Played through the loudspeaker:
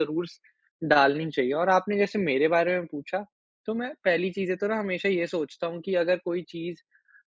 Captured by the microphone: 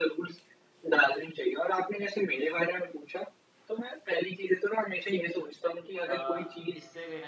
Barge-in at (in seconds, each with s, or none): 6.1 s